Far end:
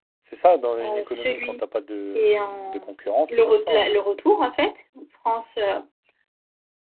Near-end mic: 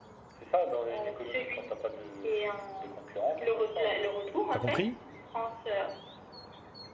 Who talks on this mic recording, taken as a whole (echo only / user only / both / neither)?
both